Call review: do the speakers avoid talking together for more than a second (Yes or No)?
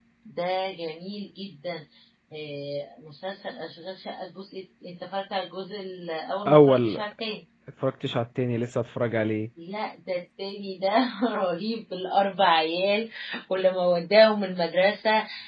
Yes